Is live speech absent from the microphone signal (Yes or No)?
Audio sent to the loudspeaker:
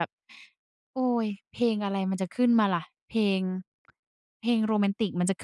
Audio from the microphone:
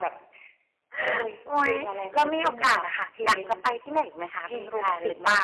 No